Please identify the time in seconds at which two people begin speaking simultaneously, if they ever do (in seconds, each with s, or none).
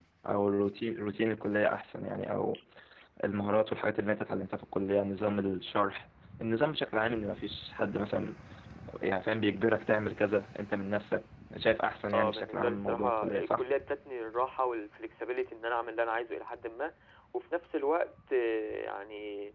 12.1 s